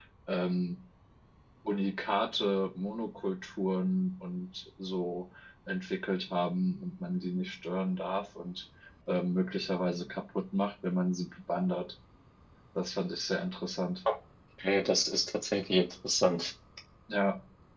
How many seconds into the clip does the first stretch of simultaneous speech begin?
none

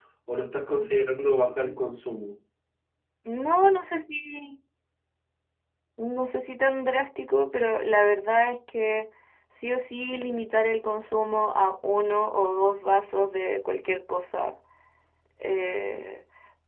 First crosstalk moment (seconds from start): none

